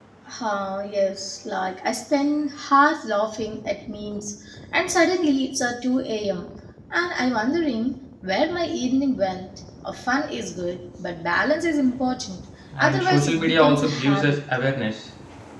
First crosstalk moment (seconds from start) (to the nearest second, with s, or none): 13 s